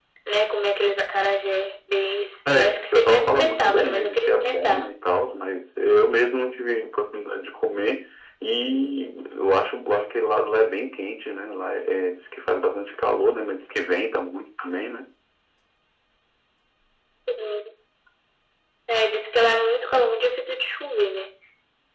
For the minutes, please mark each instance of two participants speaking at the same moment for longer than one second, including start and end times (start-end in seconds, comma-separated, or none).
2.6-4.9